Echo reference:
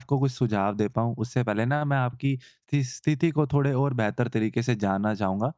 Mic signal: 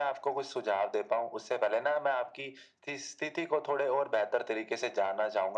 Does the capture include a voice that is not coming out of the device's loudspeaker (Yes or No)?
No